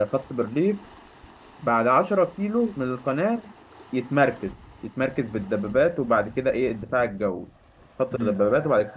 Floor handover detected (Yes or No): No